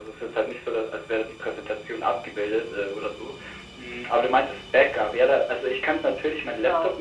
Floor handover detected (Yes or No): No